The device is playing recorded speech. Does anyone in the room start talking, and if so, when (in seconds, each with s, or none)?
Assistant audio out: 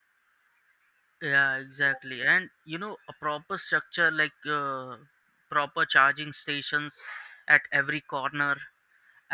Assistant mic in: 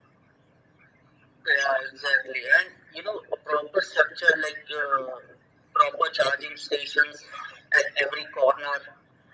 none